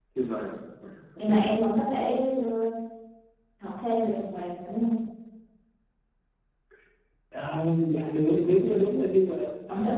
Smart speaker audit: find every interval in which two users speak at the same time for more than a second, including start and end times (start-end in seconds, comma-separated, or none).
none